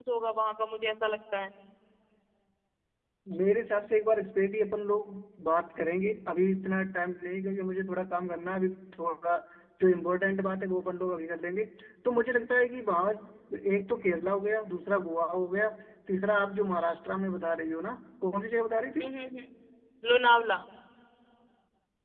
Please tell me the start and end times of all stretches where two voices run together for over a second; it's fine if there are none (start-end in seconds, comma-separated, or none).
none